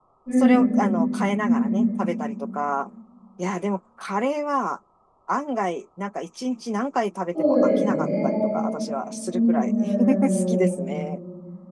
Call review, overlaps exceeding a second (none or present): present